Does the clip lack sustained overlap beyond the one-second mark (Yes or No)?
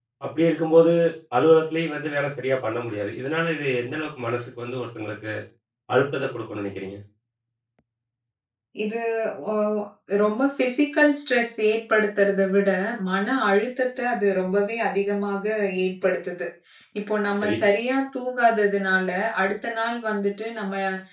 Yes